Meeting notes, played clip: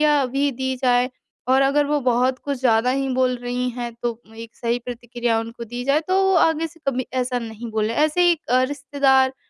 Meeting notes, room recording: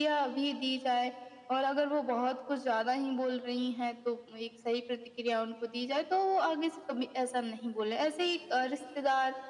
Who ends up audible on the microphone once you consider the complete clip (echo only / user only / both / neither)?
echo only